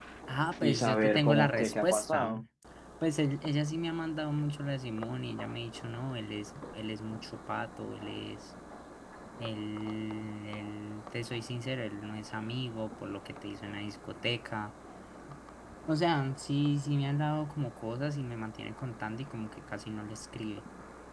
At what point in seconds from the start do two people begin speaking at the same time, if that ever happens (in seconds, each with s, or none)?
0.6 s